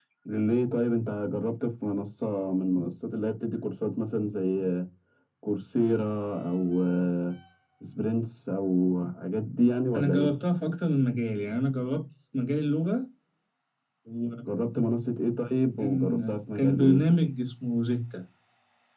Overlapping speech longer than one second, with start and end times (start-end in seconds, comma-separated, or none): none